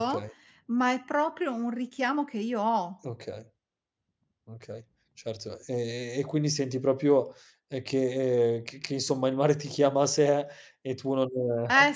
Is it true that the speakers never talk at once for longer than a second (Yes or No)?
Yes